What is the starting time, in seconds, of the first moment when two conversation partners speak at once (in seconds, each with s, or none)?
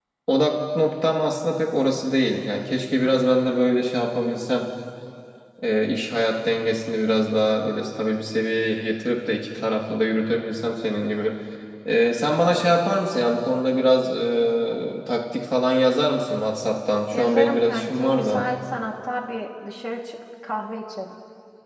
17.1 s